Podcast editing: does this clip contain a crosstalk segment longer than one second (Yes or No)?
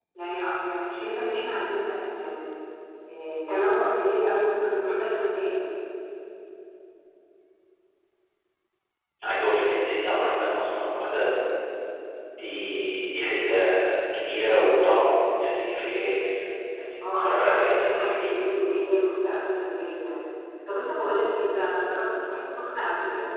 Yes